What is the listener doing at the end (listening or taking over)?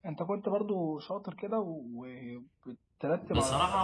taking over